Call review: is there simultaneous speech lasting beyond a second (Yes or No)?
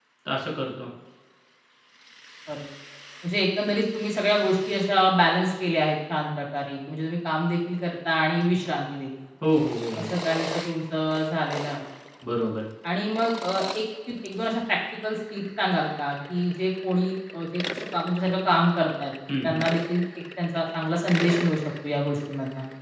No